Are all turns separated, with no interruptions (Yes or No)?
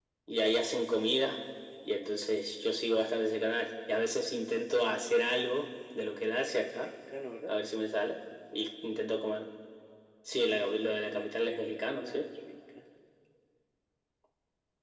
No